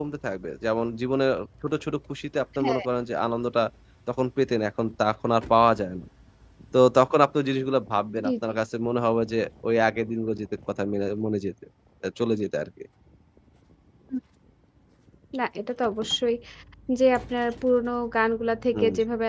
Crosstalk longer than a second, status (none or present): none